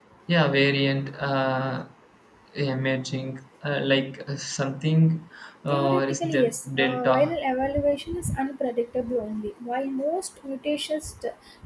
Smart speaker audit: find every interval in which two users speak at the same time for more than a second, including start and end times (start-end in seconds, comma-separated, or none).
5.7-7.4